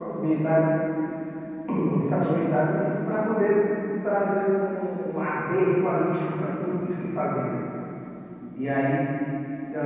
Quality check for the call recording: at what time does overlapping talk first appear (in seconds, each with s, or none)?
none